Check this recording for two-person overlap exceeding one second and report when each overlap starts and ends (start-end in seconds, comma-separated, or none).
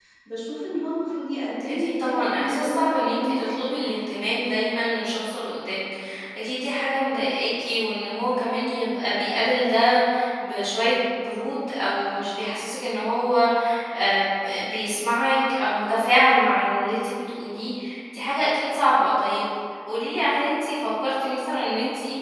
1.7-3.8